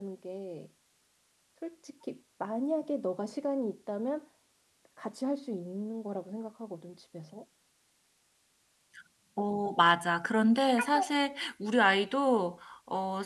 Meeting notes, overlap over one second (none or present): none